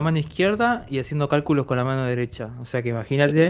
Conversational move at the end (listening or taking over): listening